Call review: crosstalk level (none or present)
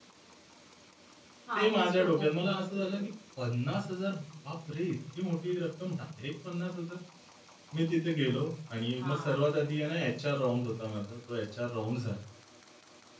present